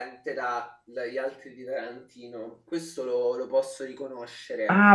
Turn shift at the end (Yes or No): Yes